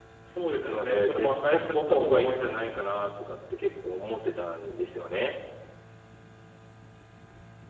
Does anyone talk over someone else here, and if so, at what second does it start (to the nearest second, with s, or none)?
1 s